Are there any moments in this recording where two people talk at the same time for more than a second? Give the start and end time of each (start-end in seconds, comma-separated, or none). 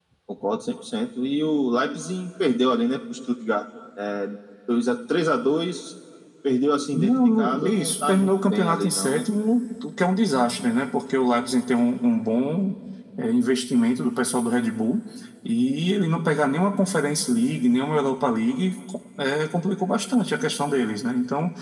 6.9-9.2